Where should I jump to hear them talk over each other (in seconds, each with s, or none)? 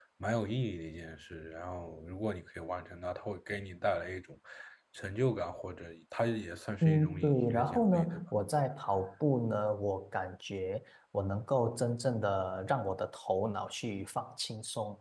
6.8 s